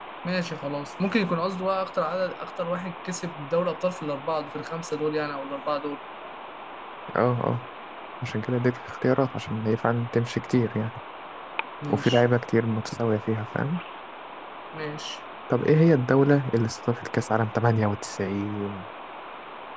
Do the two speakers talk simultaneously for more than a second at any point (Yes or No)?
No